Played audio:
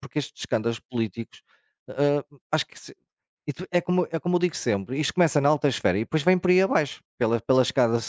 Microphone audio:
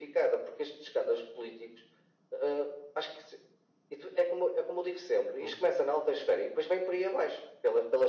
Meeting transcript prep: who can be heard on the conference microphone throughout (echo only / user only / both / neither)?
both